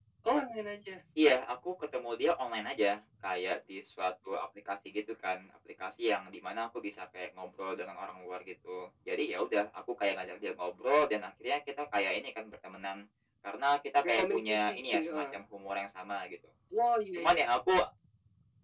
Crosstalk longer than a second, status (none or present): present